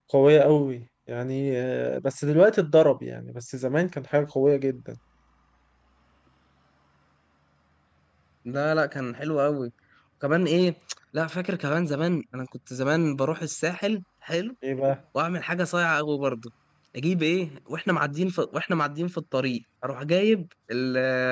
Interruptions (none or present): none